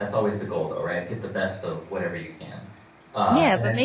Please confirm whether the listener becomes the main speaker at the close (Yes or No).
Yes